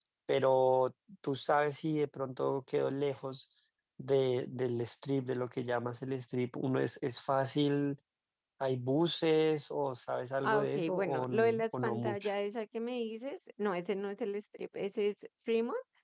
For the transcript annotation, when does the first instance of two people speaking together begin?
10 s

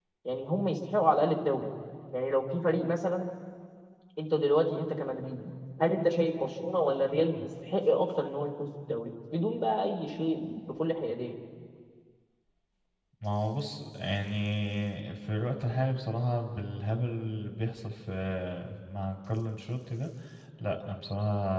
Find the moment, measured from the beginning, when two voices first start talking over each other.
none

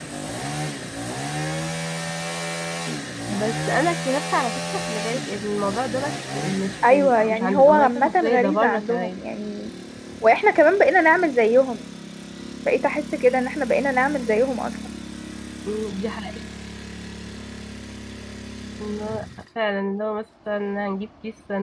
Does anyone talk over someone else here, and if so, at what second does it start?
7 s

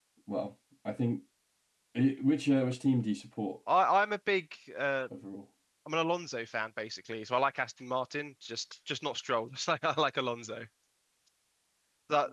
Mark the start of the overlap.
none

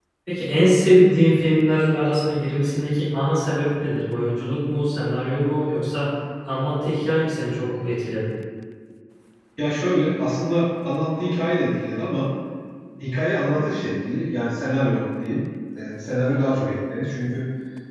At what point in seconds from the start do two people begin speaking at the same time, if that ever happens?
none

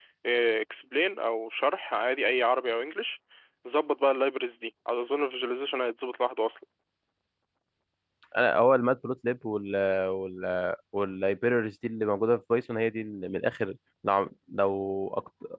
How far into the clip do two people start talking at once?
none

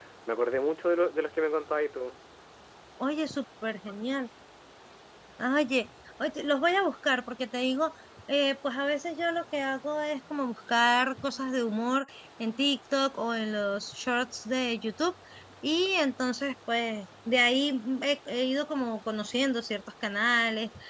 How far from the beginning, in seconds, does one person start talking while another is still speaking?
none

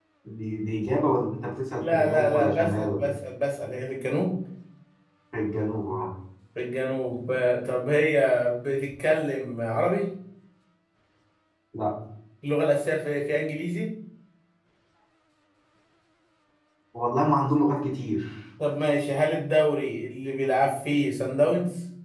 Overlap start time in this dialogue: 2 s

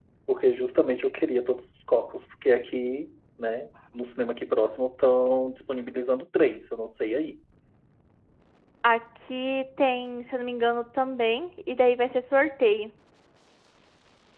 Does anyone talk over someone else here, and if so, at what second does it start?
none

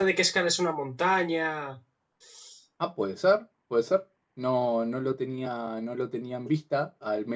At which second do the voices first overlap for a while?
none

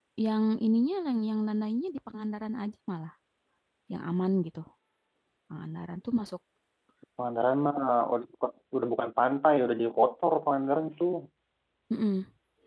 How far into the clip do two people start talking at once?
none

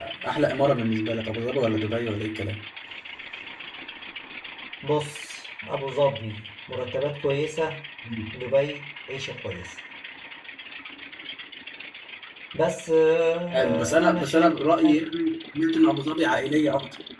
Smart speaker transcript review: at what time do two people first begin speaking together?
14 s

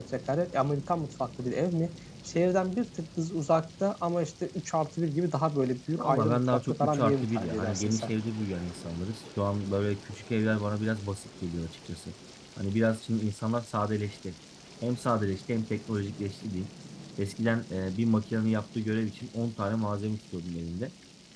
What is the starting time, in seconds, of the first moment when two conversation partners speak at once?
6 s

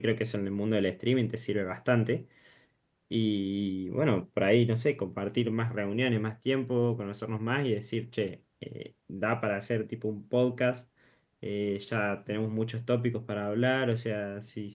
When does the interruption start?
none

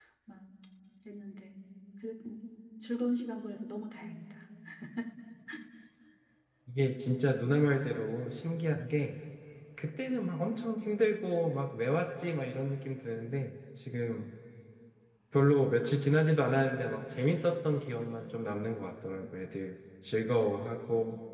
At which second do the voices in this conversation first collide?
none

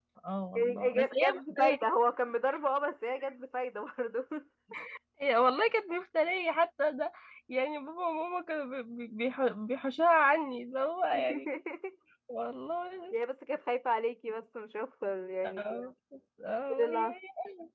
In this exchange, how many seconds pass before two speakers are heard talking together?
1 s

